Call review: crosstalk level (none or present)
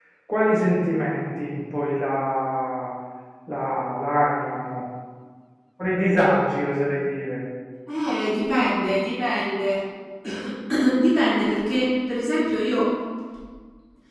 none